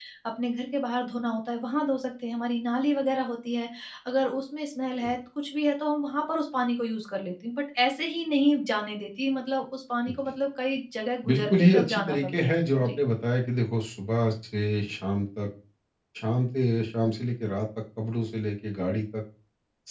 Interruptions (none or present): present